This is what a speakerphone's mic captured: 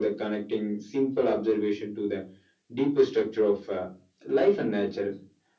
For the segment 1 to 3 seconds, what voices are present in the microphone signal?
echo only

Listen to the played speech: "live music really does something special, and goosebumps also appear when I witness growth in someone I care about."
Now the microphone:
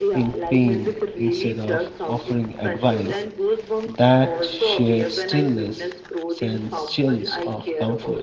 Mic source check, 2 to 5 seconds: both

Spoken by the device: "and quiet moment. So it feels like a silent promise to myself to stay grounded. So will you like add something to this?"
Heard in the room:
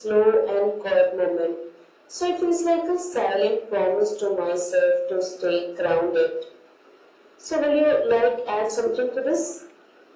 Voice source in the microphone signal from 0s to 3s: echo only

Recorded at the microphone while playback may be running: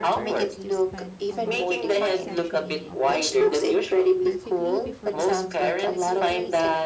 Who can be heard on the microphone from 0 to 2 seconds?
both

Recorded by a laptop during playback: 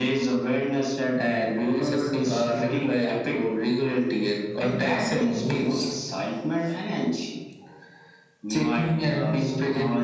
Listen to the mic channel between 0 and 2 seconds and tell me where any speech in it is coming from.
echo only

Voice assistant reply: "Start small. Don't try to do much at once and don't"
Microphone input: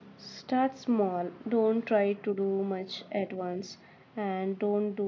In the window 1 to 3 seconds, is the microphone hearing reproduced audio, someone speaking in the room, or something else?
echo only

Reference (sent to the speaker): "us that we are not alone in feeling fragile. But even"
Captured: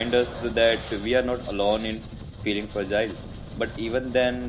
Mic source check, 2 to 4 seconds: echo only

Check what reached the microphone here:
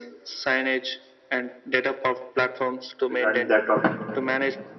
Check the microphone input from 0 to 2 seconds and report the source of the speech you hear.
echo only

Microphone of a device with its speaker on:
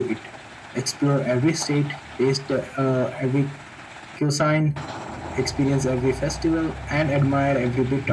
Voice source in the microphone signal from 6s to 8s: echo only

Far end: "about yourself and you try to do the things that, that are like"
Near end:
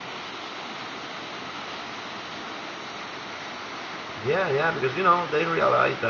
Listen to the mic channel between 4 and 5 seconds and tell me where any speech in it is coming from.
user only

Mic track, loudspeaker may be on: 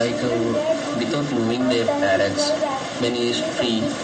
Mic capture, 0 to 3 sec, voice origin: echo only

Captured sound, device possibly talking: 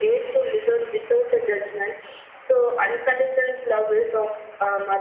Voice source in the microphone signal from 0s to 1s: echo only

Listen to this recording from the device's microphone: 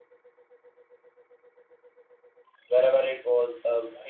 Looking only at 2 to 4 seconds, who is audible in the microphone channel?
user only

